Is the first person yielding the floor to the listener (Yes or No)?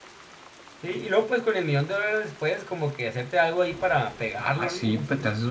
Yes